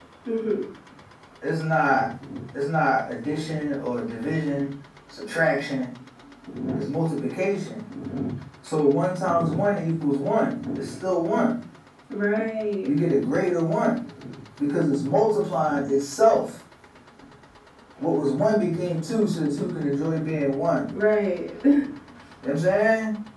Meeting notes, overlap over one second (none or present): none